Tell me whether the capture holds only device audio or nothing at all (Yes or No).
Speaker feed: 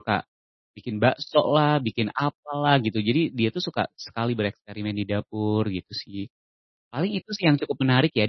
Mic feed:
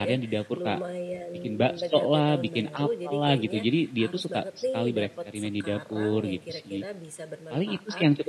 No